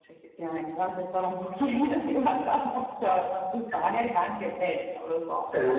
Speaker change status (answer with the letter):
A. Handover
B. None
A